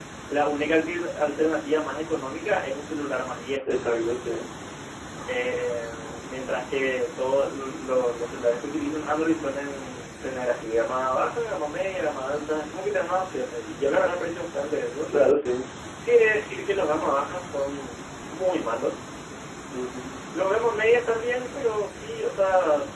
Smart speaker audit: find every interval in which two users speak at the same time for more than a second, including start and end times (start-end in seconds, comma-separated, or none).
none